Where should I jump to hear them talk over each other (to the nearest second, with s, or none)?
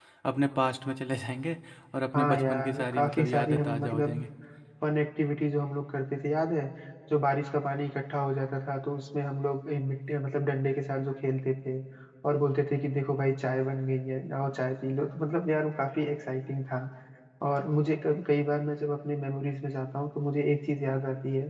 2 s